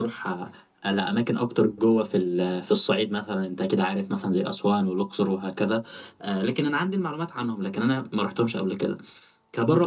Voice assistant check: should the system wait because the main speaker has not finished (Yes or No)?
Yes